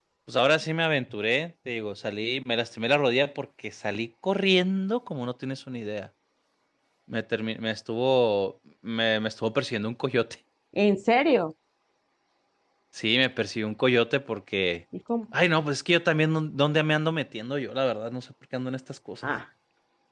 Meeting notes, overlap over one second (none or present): none